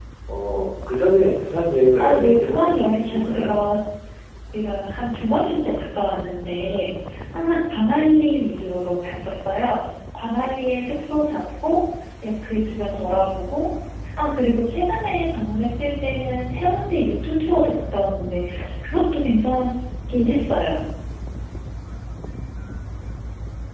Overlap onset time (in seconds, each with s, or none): 2.0 s